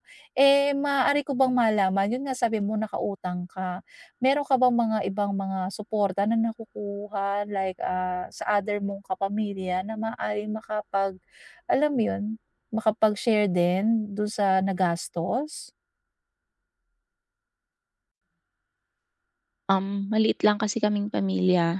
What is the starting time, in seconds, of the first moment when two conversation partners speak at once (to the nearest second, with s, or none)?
none